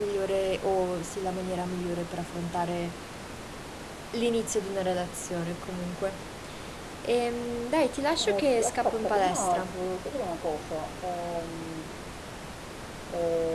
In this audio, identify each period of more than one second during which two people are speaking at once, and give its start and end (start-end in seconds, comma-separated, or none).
8.2-9.7